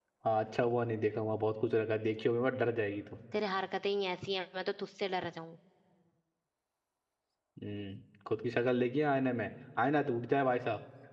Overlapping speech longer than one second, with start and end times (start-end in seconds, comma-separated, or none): none